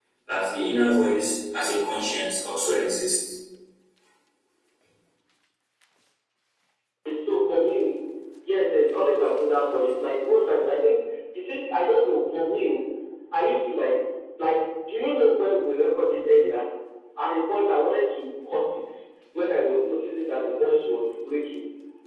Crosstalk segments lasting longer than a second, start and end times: none

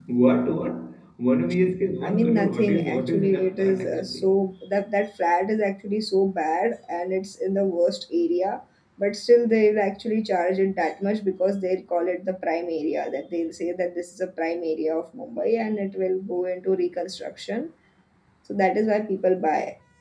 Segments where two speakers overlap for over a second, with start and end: 2.0-4.3

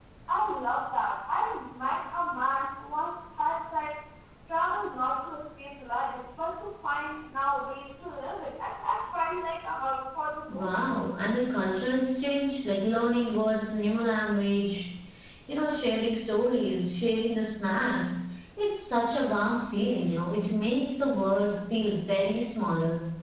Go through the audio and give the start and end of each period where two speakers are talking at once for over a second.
none

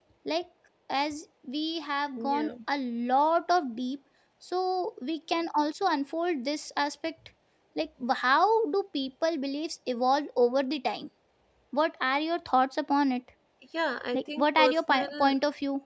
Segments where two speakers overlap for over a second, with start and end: 14.1-15.4

